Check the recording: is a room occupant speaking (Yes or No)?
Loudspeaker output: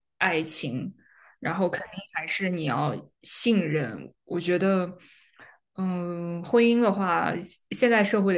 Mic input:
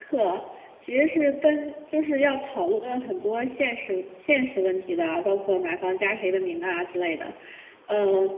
Yes